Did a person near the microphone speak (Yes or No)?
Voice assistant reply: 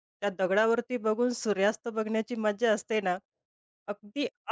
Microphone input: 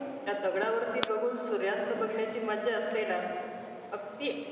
No